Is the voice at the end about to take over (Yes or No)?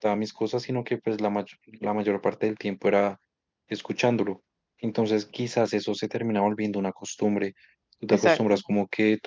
No